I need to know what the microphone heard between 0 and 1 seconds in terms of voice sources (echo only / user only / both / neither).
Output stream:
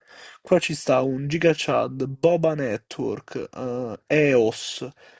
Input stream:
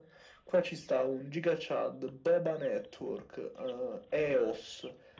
echo only